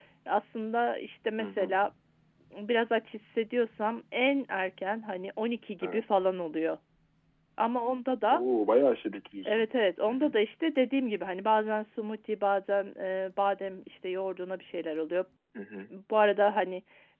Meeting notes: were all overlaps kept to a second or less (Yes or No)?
Yes